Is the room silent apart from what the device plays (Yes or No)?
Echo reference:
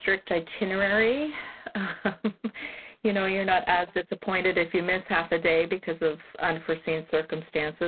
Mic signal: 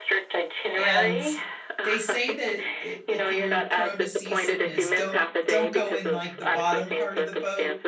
No